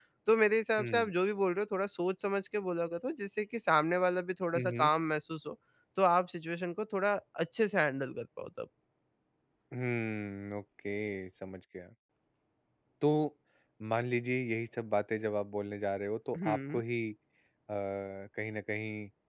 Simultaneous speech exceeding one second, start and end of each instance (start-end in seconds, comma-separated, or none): none